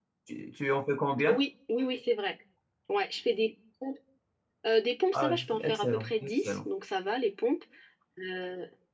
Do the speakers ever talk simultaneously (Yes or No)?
Yes